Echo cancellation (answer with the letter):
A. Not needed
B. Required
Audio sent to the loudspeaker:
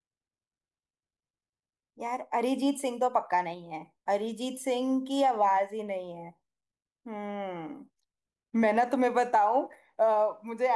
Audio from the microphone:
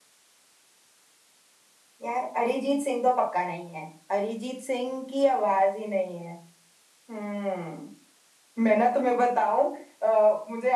B